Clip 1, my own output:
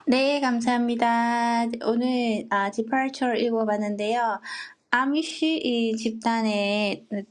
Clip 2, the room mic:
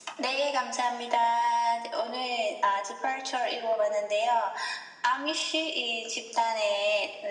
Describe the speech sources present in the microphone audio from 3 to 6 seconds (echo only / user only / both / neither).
echo only